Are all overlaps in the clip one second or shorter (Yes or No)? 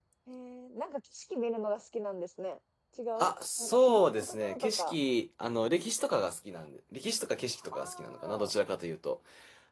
No